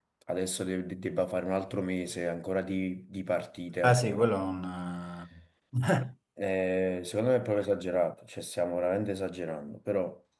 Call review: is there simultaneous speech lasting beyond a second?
No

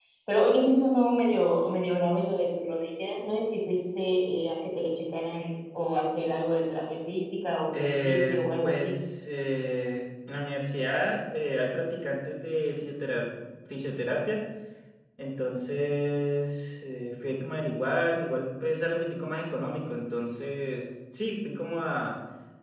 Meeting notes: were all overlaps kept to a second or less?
No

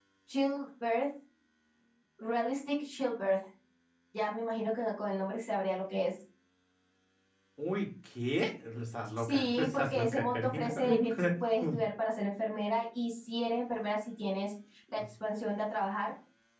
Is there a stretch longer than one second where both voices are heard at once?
Yes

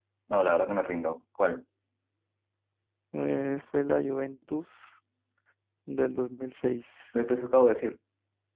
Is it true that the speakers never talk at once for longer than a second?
Yes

